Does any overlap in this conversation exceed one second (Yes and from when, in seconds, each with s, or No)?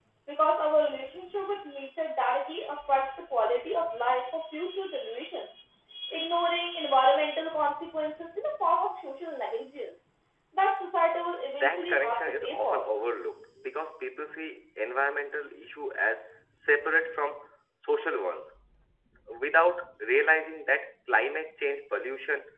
Yes, from 11.4 s